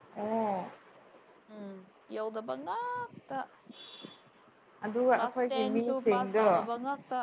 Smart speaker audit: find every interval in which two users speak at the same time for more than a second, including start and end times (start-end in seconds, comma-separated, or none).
5.1-6.4